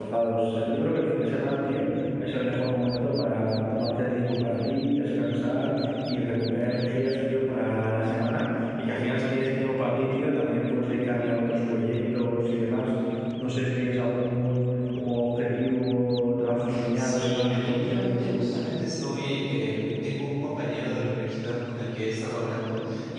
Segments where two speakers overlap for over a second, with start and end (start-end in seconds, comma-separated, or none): 16.9-18.5